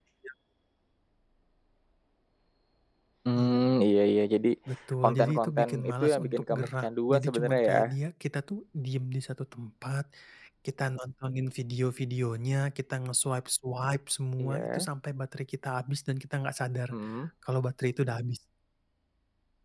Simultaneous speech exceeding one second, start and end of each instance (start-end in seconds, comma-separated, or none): 5.0-7.9